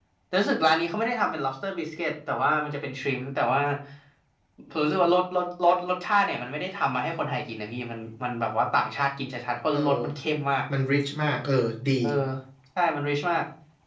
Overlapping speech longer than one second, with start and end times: none

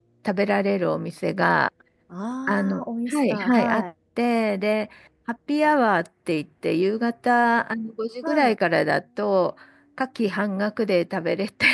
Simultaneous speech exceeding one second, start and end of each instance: 2.5-3.8

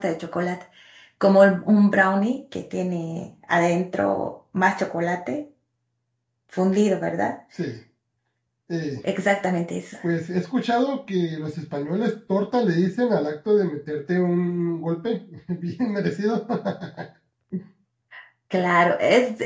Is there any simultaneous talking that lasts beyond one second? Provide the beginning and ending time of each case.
none

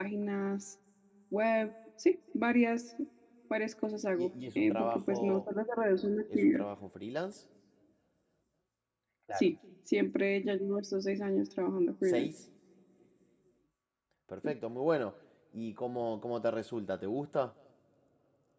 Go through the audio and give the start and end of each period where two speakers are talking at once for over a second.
4.0-5.4

